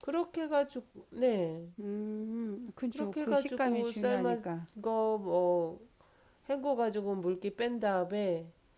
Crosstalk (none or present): present